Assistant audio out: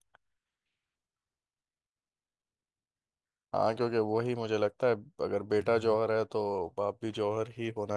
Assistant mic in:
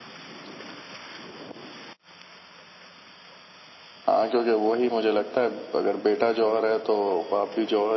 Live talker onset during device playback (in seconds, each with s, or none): none